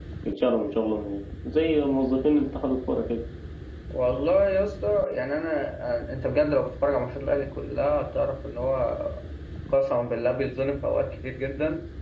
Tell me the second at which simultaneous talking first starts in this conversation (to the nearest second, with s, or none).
none